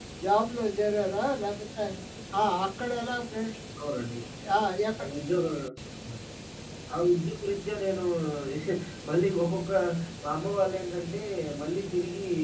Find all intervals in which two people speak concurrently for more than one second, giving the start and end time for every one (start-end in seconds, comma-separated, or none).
none